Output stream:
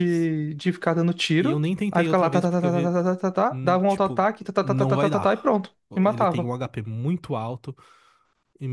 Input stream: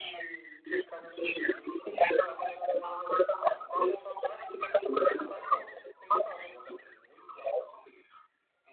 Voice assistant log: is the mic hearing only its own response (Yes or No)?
Yes